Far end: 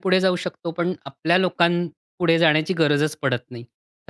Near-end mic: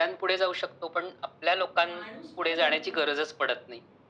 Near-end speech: present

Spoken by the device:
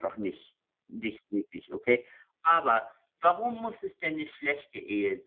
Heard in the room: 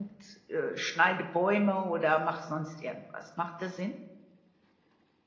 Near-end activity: present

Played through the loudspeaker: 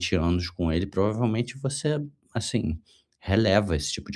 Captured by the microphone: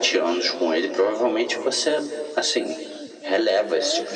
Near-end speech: present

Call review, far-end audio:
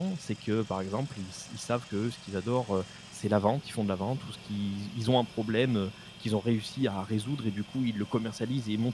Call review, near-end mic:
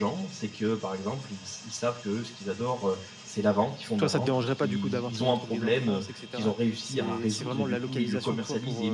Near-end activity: present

